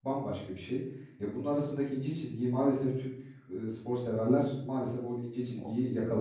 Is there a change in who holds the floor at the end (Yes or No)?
Yes